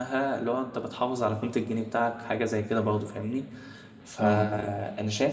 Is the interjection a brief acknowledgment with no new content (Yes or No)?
Yes